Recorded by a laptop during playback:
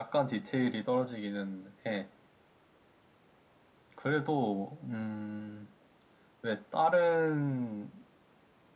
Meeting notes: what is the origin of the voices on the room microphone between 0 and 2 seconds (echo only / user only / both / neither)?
user only